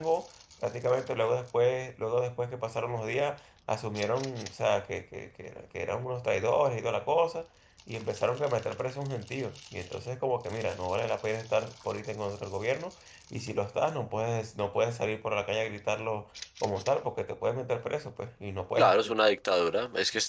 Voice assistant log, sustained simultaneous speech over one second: none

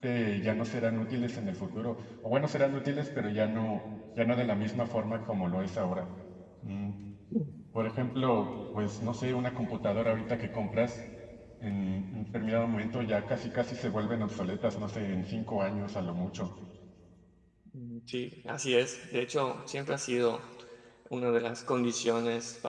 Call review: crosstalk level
none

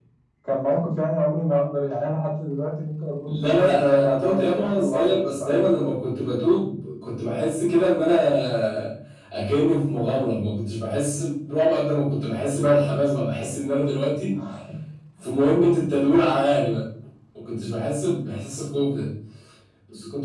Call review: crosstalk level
present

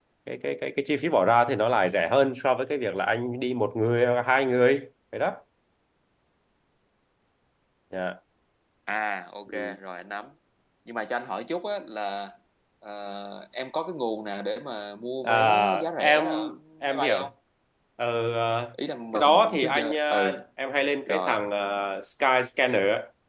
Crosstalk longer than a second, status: present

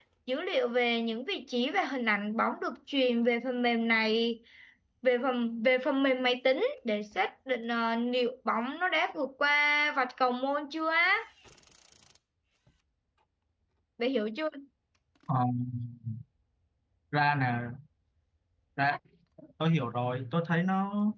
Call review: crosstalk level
none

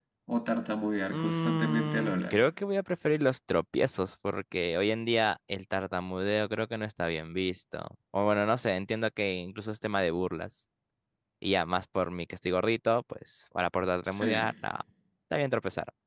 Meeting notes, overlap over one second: present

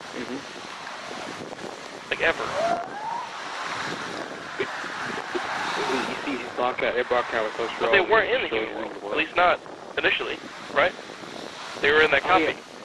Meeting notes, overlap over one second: present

